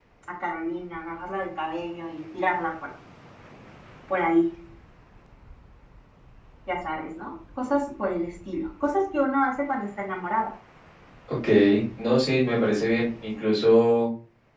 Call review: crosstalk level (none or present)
none